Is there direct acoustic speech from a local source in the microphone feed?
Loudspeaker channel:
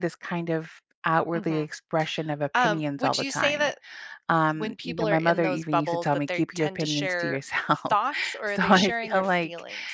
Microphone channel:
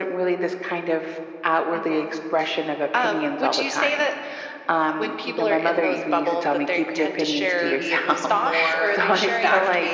Yes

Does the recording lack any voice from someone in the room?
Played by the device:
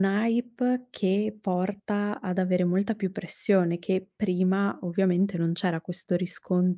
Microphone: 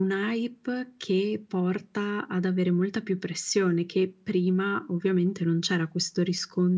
Yes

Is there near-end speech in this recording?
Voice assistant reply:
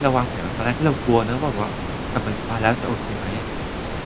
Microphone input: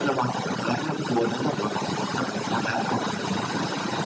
No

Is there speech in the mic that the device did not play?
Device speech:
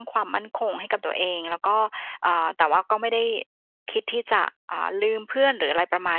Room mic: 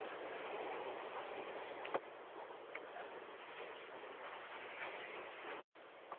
No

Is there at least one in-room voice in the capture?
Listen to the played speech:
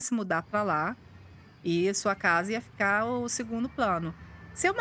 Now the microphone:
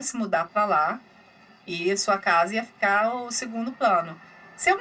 No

